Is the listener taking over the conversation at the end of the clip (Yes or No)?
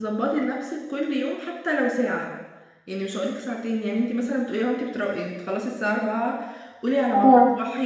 No